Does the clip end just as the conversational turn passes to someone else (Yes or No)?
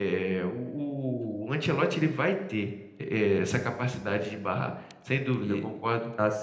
Yes